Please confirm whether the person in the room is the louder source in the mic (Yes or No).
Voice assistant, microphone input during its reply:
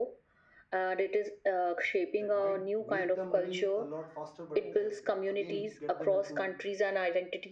No